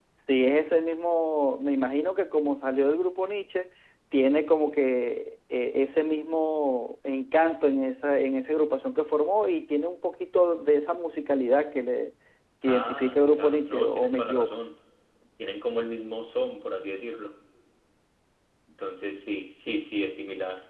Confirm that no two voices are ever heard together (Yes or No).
No